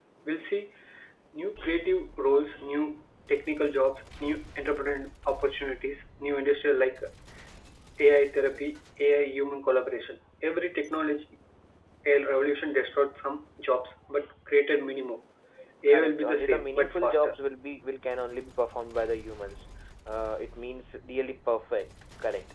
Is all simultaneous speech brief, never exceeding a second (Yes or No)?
No